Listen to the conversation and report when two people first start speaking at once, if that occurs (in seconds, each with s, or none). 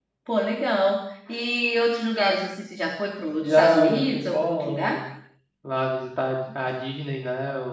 3.4 s